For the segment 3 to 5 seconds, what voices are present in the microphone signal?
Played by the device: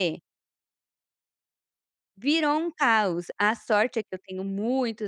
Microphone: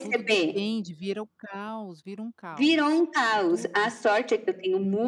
both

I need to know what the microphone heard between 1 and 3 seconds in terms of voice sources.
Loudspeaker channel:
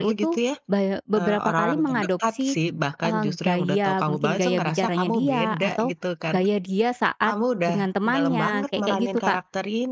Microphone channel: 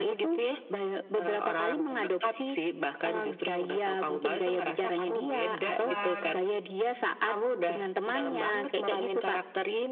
echo only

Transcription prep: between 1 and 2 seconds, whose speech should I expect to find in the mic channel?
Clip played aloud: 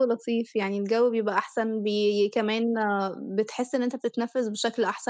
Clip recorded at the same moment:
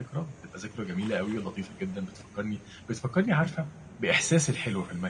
user only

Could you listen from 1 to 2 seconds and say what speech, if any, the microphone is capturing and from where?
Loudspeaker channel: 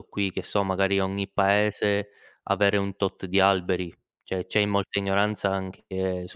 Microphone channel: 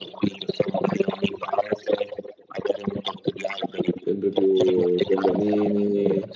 echo only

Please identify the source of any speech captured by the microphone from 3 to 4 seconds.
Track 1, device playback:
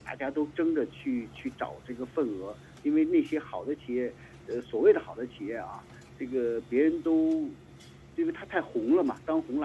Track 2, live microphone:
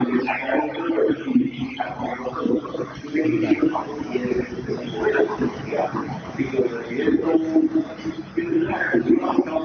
both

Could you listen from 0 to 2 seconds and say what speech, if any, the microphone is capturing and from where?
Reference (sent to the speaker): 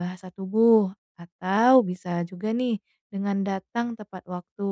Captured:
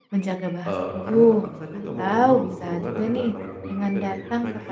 both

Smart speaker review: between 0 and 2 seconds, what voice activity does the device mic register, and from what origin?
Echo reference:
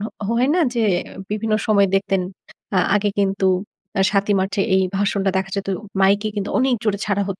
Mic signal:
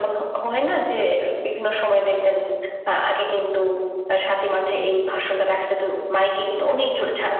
echo only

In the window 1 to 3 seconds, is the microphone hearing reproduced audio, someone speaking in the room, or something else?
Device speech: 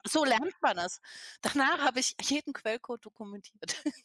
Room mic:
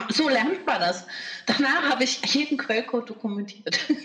echo only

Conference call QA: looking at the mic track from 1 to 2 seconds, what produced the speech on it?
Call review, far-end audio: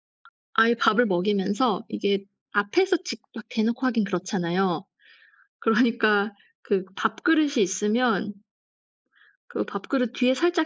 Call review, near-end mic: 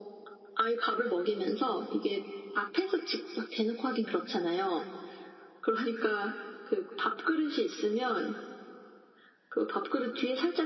echo only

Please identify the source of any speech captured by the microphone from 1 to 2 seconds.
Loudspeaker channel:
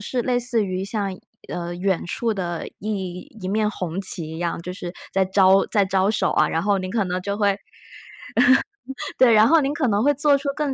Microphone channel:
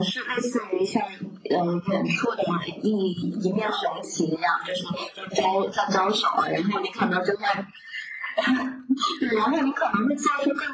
echo only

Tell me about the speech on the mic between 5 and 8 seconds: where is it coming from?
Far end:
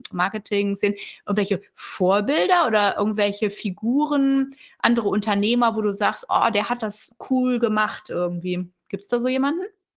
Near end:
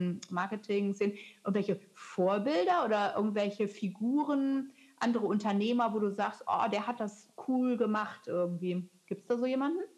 echo only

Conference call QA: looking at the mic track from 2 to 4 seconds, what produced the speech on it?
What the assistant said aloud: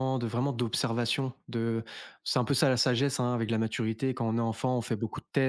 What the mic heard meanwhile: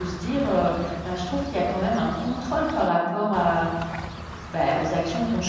user only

